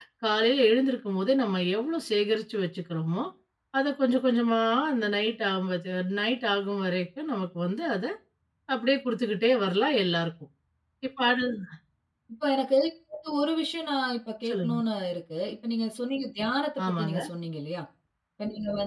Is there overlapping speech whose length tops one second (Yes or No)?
No